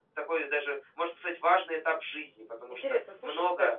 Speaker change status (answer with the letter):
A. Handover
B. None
A